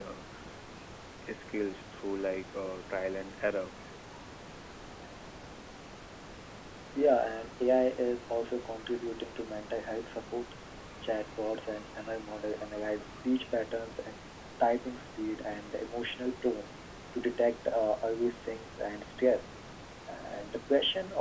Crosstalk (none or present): none